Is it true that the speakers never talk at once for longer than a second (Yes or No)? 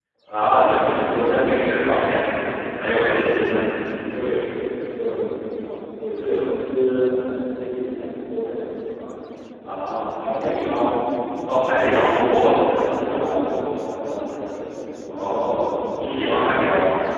No